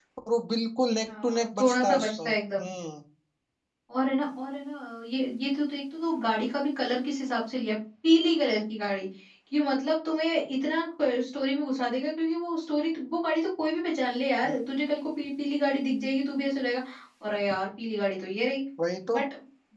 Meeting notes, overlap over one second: present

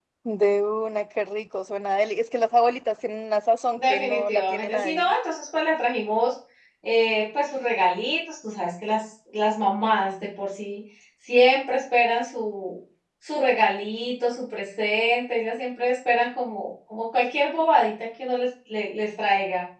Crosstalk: present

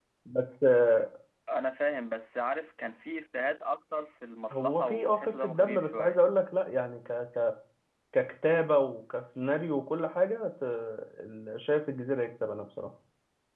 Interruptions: present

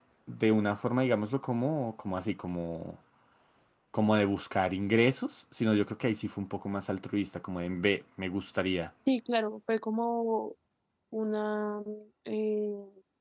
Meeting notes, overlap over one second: none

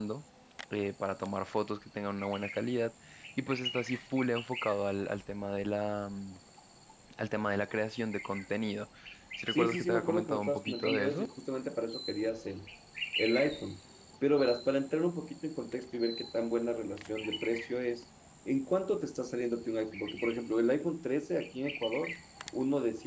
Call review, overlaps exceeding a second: present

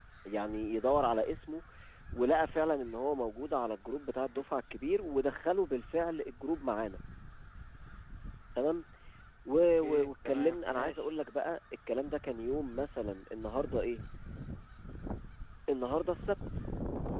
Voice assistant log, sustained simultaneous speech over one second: present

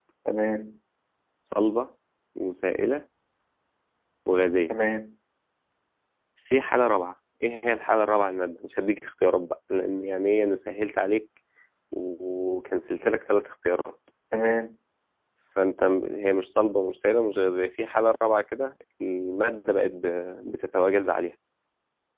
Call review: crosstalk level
none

